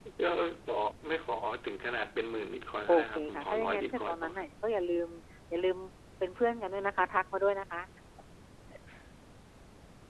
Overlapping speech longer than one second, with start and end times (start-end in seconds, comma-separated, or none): 2.9-4.5